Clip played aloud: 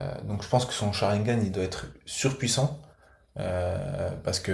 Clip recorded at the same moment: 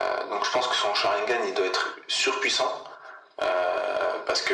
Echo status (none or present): present